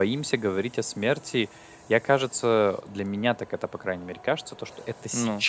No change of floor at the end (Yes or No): Yes